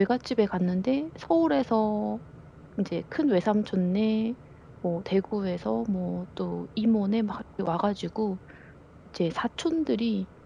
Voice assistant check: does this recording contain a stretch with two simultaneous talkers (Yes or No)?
No